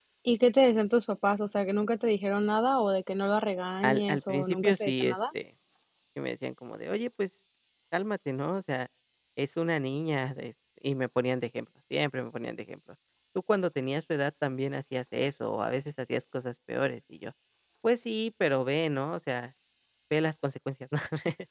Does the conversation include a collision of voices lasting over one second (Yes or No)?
Yes